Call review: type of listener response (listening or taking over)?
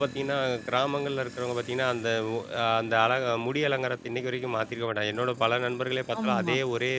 listening